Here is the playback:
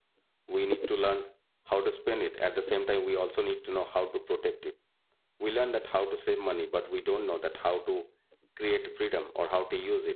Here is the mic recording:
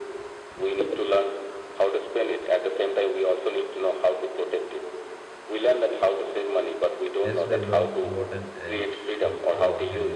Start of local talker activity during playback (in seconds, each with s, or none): 7.2 s